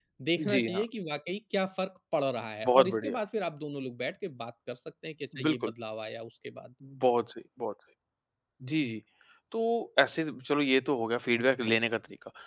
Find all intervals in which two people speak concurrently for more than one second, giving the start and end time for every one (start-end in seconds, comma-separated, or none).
none